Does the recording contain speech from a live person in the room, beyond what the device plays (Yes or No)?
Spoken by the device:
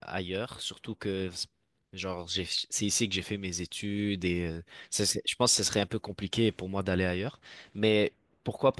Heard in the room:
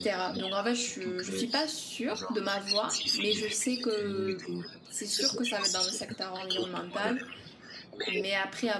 Yes